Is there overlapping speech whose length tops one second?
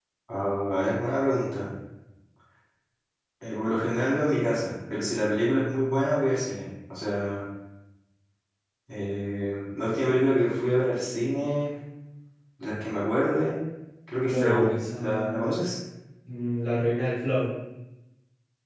Yes, from 14.2 s

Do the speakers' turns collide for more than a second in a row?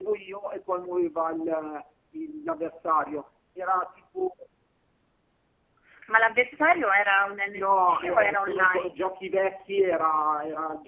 Yes, from 7.5 s

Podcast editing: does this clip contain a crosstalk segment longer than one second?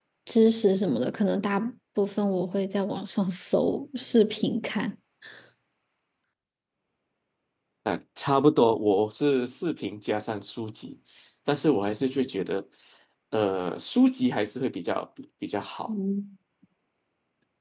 No

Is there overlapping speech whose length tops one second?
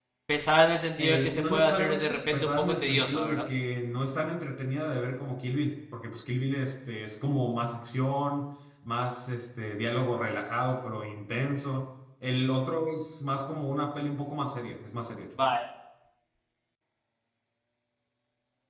Yes, from 1.0 s

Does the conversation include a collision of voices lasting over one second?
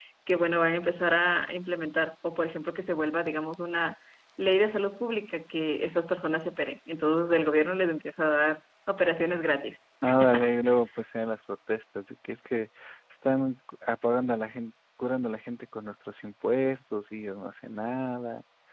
No

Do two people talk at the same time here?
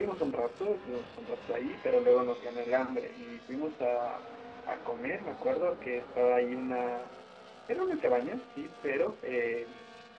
No

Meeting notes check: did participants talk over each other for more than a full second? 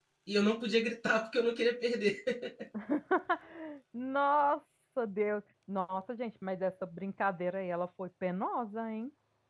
No

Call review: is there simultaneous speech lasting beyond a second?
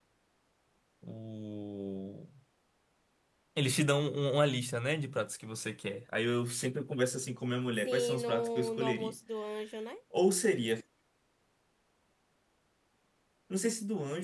Yes, from 7.7 s

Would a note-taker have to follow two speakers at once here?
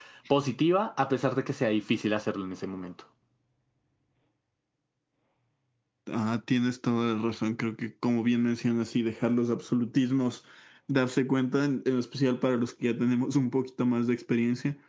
No

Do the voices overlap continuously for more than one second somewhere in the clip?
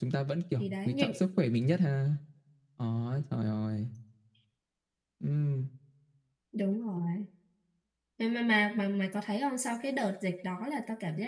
No

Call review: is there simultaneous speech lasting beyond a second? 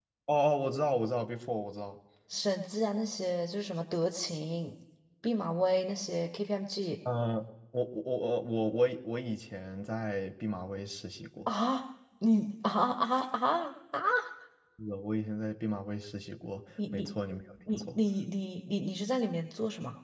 No

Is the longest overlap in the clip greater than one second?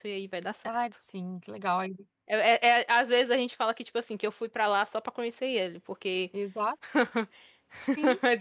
No

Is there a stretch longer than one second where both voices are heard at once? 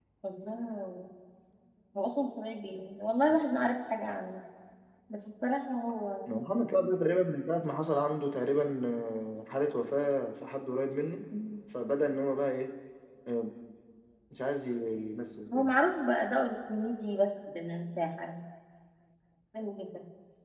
No

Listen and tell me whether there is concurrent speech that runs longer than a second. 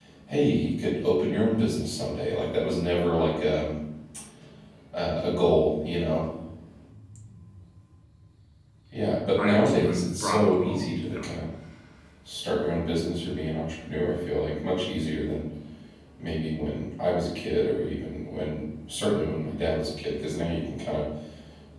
Yes, from 9.4 s

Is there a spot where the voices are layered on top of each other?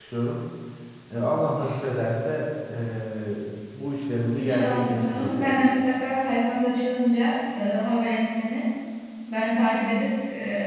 Yes, from 4.3 s

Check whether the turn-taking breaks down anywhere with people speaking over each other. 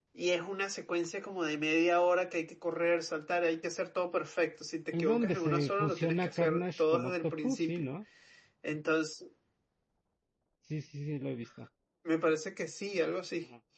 Yes, from 4.9 s

